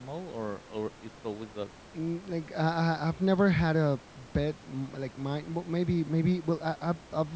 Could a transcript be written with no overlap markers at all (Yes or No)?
Yes